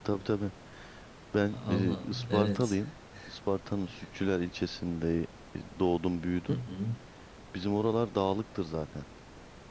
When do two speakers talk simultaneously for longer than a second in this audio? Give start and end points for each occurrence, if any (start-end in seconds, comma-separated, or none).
1.5-2.8